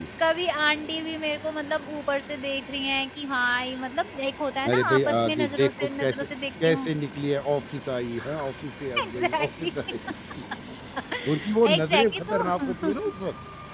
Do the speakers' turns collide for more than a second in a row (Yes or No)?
Yes